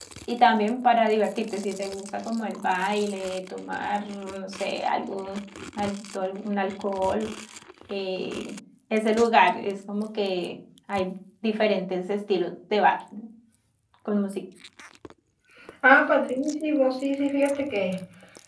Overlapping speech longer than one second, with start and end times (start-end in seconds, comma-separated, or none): none